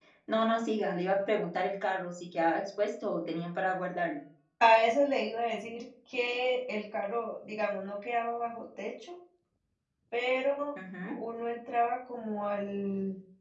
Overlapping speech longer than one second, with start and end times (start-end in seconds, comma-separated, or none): none